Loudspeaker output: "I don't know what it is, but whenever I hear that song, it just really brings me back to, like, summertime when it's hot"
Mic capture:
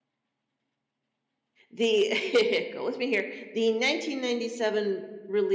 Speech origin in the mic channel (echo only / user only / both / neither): user only